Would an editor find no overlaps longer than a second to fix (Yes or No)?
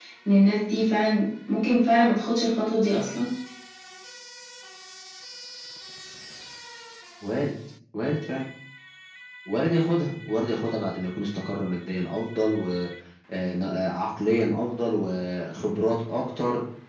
Yes